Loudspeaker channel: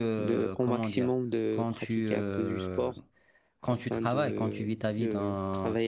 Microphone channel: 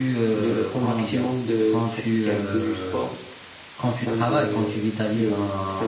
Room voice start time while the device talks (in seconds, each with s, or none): none